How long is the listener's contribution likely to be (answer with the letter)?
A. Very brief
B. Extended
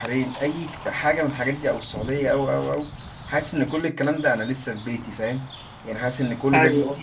A